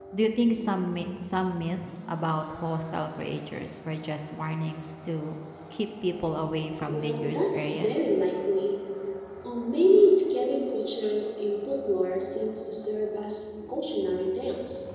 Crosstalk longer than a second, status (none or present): present